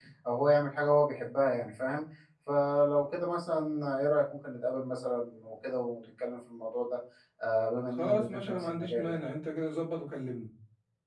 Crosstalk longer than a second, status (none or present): present